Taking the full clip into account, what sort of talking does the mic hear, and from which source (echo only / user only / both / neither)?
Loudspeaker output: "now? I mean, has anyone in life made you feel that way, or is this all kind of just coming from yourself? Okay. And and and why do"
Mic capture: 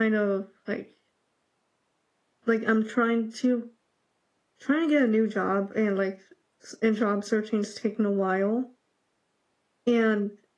user only